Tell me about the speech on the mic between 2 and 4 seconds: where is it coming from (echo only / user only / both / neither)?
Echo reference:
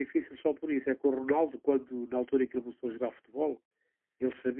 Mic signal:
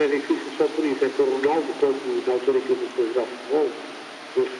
echo only